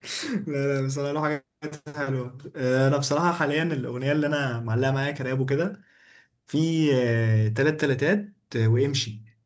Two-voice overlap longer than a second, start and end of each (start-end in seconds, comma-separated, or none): none